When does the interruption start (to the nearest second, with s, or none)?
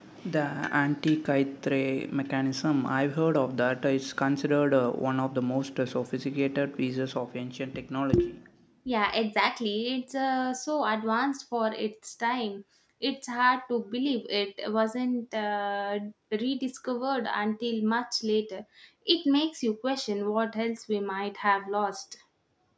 none